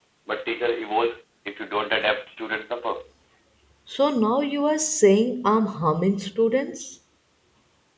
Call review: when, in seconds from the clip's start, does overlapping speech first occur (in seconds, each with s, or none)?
none